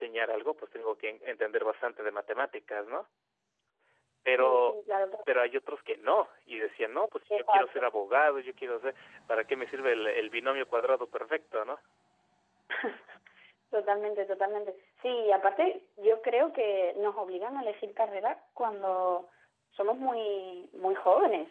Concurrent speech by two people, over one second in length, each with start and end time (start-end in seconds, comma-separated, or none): none